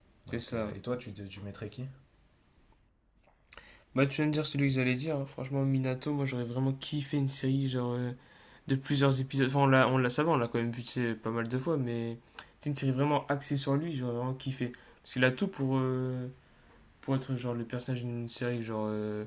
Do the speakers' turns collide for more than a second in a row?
No

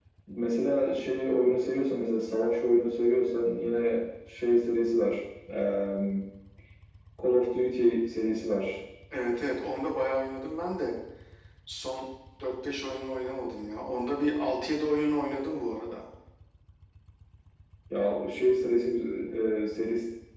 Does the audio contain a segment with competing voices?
No

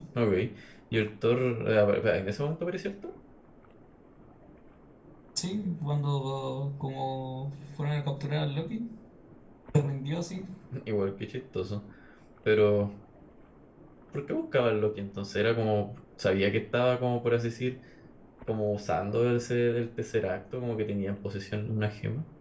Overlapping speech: No

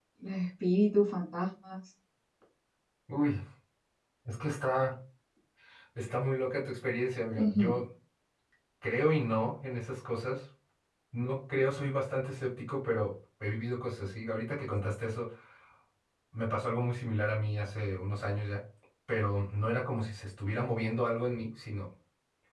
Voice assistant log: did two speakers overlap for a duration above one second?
No

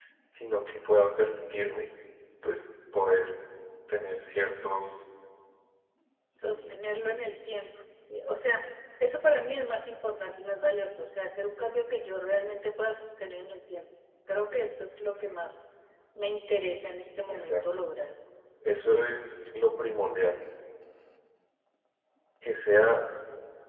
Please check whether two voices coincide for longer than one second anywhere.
No

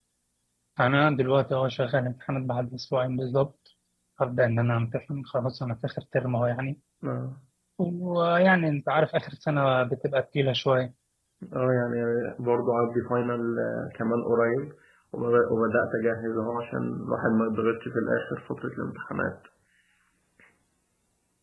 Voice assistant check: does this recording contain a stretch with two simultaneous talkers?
No

